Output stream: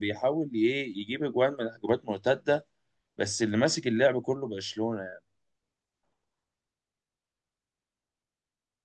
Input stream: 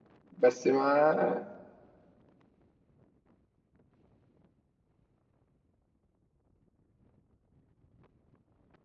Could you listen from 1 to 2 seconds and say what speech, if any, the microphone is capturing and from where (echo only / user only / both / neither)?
user only